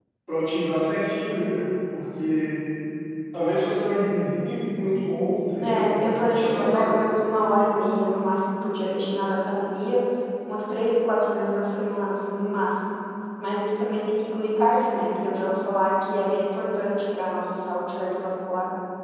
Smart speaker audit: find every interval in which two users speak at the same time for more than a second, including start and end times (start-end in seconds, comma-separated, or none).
5.6-7.0